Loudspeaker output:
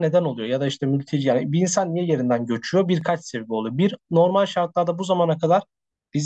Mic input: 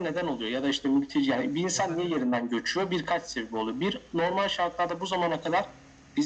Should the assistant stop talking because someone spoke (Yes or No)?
Yes